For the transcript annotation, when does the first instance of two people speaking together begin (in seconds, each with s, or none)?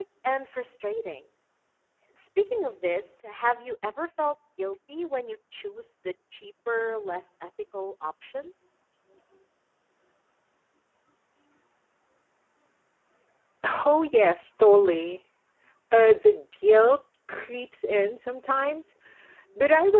none